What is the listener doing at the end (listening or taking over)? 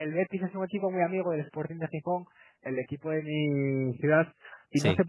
listening